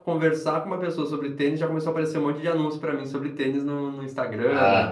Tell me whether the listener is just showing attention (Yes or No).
No